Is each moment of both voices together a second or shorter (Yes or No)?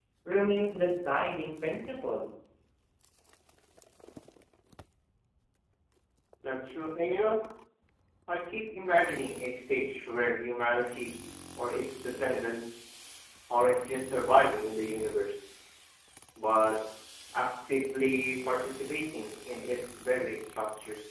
Yes